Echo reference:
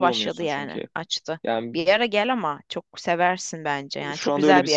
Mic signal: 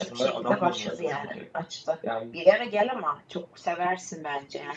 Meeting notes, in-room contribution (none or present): none